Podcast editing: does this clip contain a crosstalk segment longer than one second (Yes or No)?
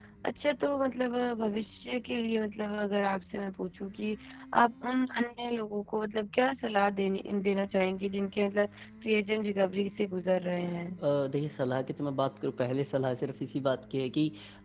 No